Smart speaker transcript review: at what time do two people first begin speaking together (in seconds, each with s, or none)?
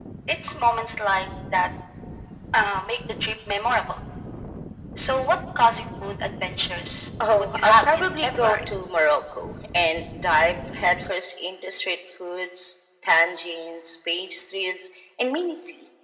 7.2 s